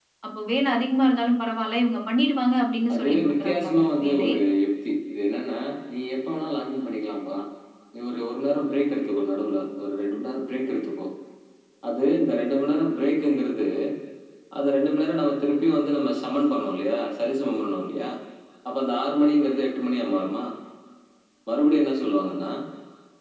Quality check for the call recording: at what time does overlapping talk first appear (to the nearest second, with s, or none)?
3 s